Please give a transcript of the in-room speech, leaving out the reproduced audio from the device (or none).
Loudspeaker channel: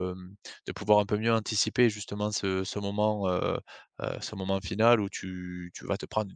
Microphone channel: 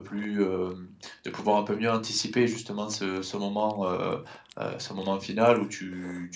none